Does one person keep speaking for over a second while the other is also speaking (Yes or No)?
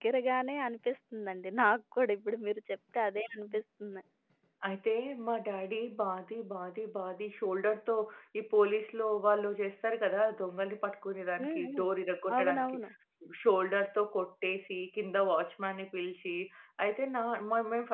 No